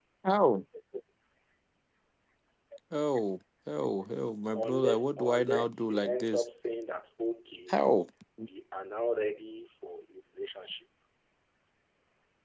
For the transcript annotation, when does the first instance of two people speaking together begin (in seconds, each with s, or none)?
4.6 s